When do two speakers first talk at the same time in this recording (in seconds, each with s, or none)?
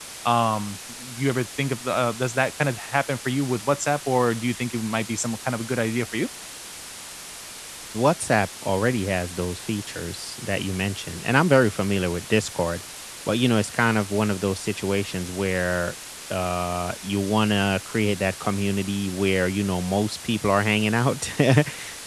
none